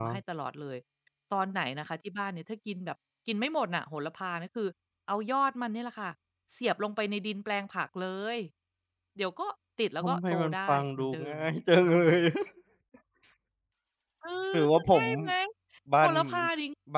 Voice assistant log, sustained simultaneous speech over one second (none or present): present